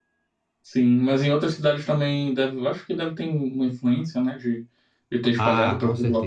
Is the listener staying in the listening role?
No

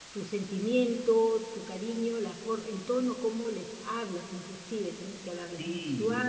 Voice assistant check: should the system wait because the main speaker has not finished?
No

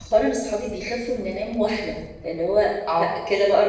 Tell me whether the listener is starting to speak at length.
Yes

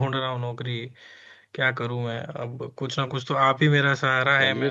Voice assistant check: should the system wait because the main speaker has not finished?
Yes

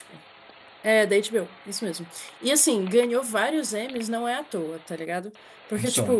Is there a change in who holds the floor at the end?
No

